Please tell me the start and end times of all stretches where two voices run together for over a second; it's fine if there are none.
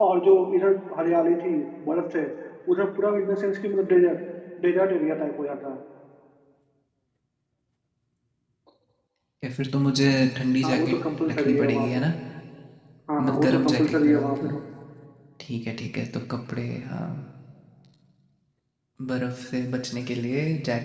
10.6-11.9, 13.2-14.6

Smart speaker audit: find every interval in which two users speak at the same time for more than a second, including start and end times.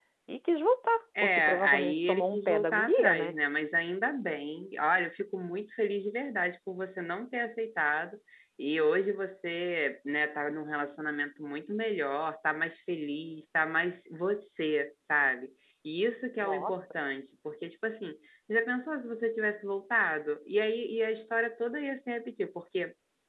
1.2-3.4

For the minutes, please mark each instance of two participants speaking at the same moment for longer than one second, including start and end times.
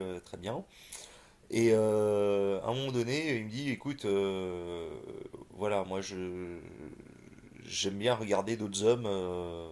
none

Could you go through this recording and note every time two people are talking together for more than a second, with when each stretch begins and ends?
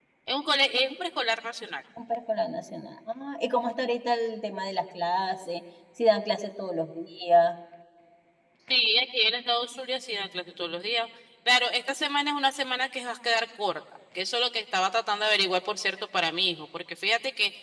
none

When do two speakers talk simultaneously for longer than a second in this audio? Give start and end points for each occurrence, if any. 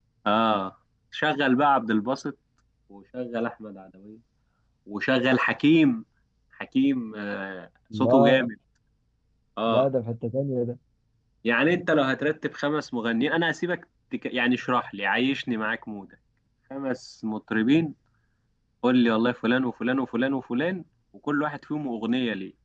none

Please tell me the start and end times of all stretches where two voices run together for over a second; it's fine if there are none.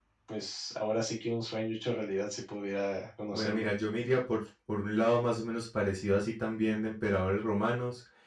none

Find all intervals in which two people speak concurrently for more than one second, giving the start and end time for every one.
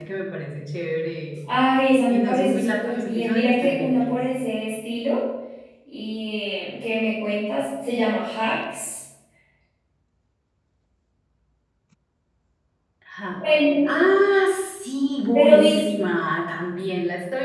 2.1-4.2

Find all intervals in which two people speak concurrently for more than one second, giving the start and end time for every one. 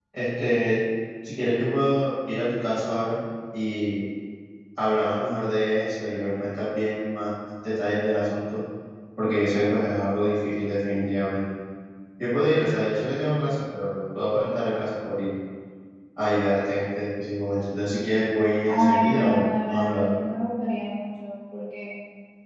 18.7-20.1

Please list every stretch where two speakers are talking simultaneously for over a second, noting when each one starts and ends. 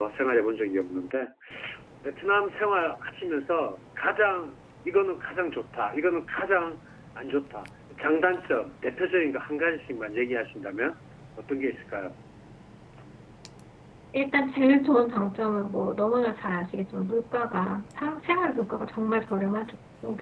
none

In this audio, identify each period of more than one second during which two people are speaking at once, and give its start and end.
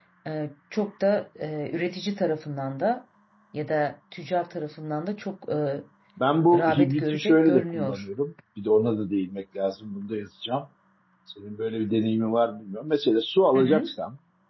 6.5-8.0

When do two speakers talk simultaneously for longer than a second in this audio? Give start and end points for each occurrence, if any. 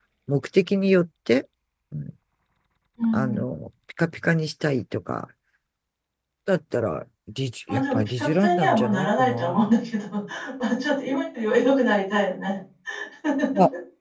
7.7-9.7

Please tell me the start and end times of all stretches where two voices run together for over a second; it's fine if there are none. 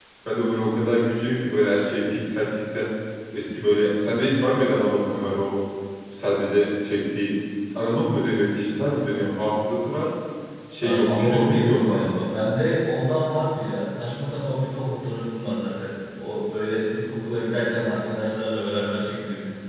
10.8-12.1

